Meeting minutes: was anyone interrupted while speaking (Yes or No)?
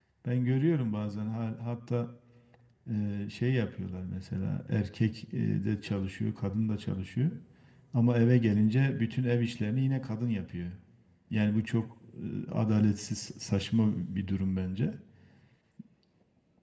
No